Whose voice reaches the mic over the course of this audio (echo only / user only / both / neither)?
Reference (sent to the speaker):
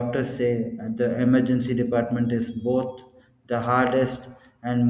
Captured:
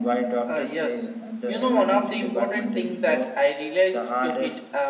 both